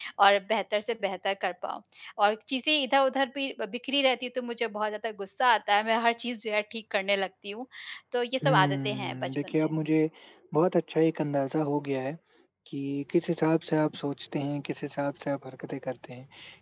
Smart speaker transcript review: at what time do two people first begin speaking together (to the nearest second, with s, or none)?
8 s